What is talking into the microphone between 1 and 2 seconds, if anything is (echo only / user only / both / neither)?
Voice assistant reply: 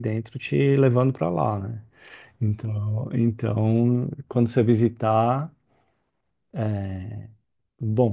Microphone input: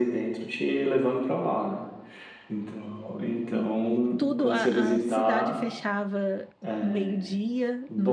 echo only